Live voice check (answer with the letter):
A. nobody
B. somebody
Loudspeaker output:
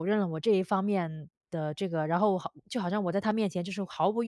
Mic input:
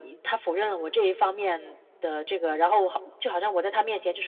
A